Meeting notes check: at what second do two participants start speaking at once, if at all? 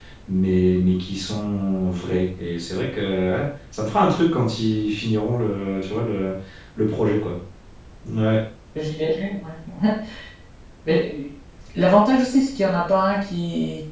none

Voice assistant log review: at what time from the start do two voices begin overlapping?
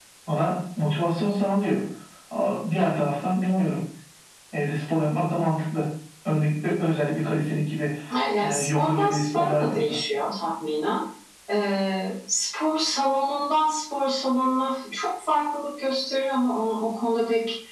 8.4 s

